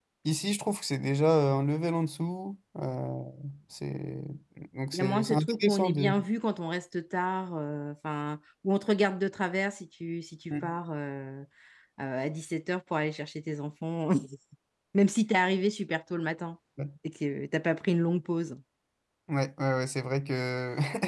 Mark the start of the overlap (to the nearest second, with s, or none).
5 s